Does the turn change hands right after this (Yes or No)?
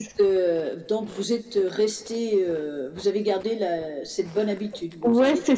Yes